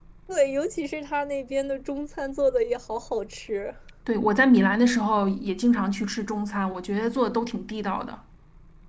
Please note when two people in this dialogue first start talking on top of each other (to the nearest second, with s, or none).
none